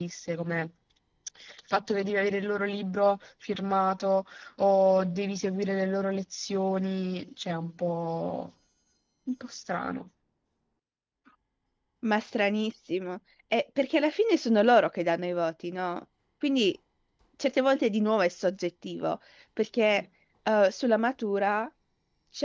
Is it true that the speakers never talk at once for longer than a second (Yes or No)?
Yes